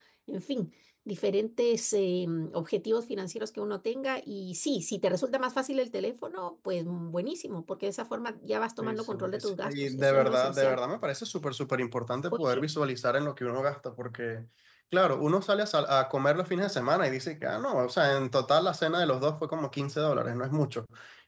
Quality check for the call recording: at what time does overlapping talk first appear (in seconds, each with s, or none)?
8.8 s